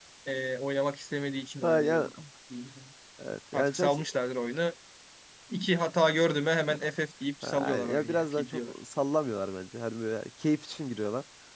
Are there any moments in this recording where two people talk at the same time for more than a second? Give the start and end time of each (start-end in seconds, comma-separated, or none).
7.4-8.7